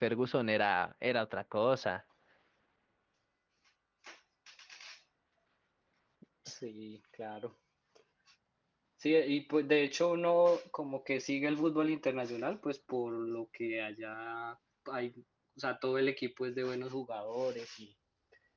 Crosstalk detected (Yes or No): No